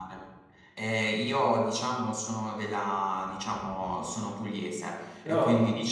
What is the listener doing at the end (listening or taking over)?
listening